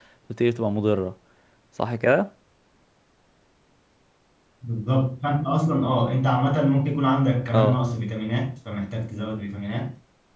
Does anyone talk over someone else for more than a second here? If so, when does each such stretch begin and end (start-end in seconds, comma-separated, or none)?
none